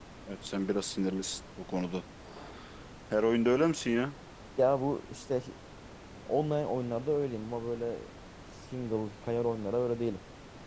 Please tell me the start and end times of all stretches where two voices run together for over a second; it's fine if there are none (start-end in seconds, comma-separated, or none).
none